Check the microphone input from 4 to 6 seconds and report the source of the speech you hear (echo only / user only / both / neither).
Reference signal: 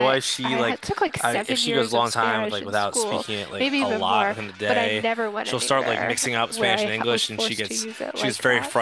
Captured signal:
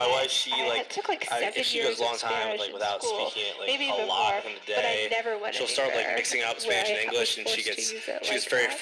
echo only